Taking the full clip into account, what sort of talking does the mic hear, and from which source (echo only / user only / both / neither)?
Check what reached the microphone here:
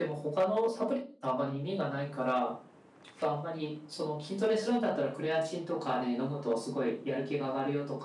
echo only